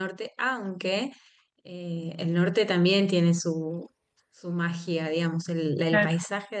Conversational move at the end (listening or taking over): listening